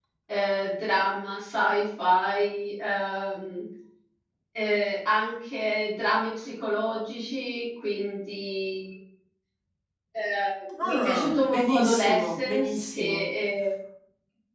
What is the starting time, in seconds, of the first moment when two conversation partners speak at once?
10.8 s

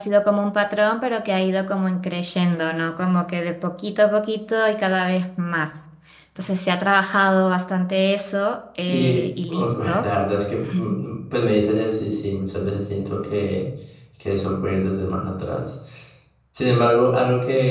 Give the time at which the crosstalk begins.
8.9 s

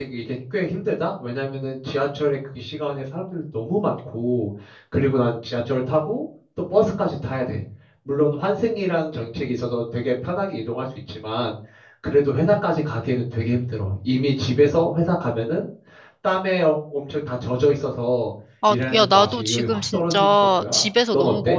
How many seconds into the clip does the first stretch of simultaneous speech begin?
18.6 s

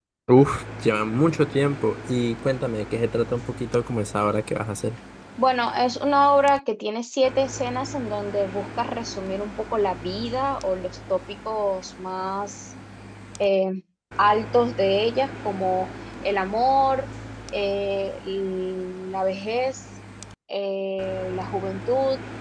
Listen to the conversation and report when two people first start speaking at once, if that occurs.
none

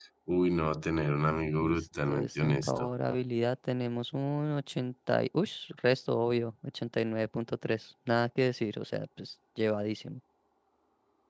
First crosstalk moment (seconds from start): 1.6 s

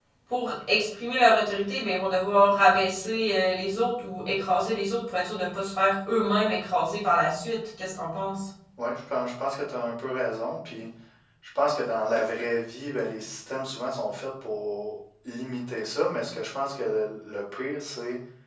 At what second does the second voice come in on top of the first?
none

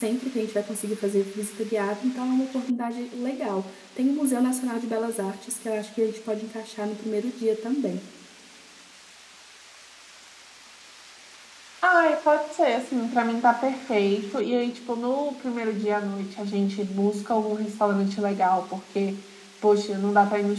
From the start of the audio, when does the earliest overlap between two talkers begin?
none

